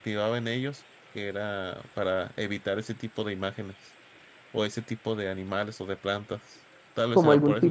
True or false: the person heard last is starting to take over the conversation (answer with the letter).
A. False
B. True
B